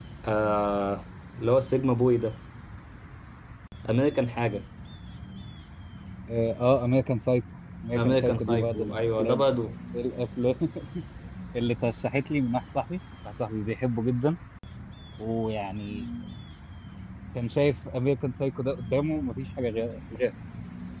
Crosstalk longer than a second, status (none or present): present